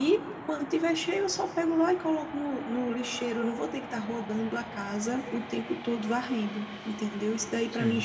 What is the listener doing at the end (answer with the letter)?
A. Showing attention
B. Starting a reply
A